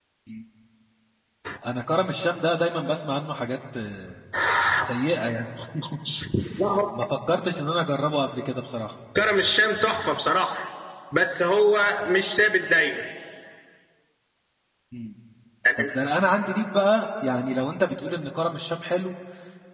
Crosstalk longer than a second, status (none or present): none